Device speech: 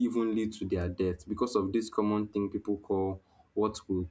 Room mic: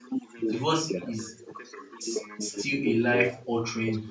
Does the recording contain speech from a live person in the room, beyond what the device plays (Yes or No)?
Yes